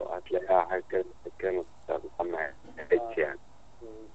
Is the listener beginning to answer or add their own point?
Yes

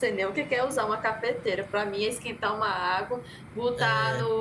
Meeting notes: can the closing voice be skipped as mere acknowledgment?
Yes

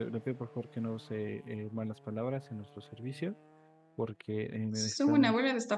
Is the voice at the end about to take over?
Yes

